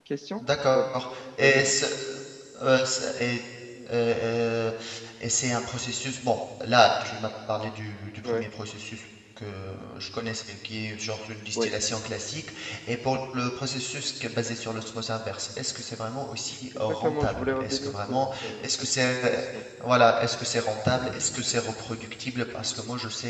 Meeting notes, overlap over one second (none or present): present